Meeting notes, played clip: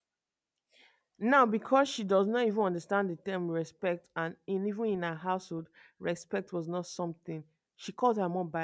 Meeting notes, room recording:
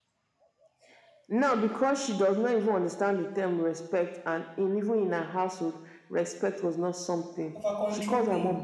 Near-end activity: present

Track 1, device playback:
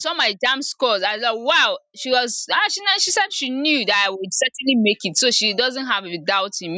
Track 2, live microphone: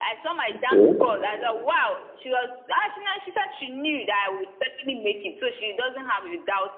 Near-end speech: present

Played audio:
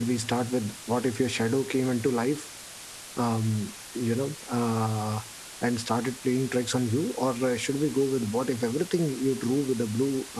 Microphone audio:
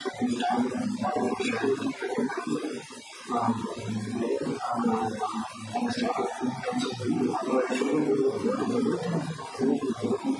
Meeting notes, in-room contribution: none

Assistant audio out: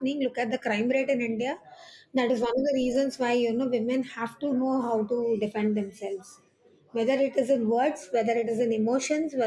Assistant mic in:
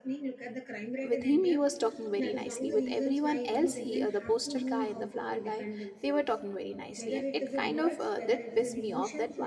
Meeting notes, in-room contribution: present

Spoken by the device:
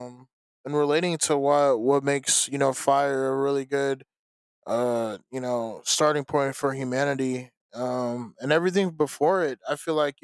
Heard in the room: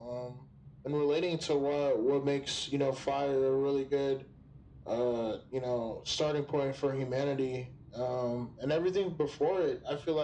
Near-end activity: none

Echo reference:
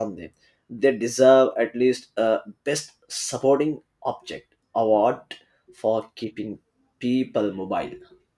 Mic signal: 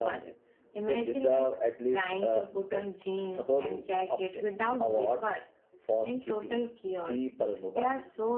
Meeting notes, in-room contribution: present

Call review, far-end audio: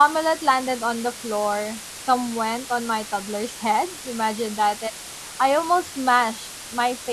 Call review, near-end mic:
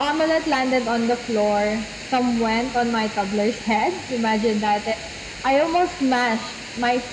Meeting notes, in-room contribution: none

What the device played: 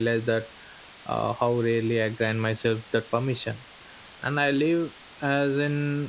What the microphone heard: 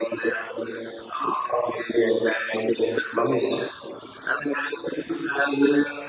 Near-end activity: none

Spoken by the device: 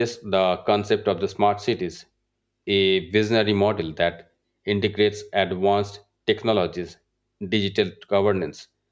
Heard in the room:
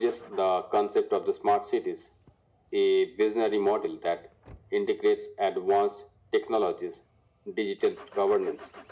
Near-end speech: none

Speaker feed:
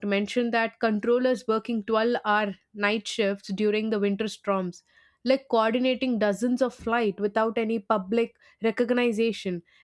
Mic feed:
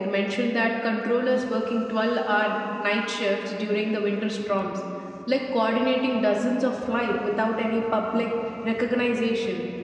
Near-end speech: none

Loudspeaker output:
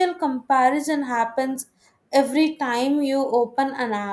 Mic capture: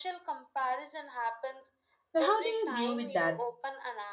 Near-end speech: present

